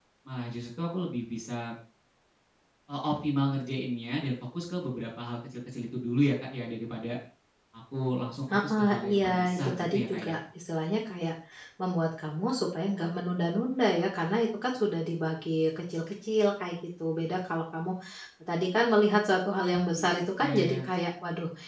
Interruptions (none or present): present